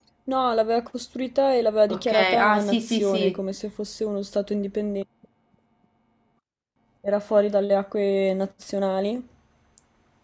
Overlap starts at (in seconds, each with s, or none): 1.9 s